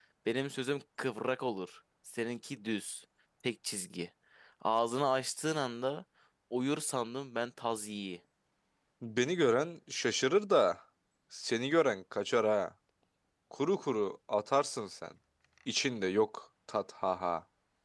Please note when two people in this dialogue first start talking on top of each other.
none

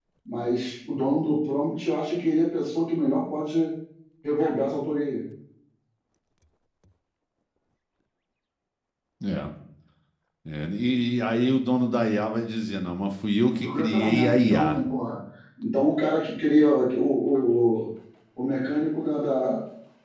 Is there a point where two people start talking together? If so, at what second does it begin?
13.5 s

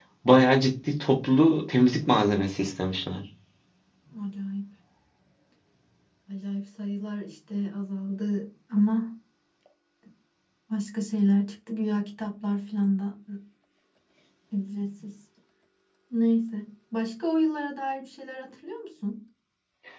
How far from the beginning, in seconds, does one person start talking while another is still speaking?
none

